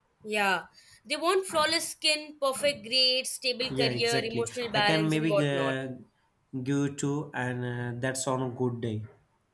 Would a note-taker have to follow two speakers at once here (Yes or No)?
Yes